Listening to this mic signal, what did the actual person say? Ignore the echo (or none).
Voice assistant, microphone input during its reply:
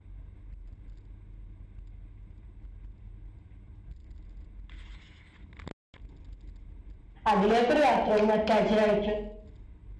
അതിലേക്കൊരു ബാത്റൂമും അറ്റാച്ച്ട് ആയി